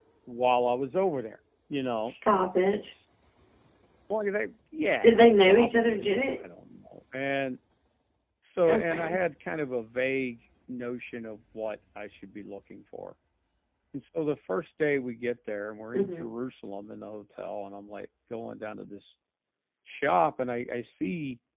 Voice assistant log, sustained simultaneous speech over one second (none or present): present